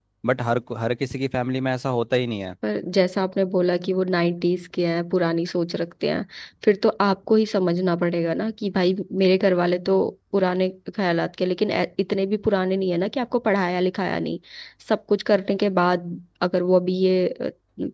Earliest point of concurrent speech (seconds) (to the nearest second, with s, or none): none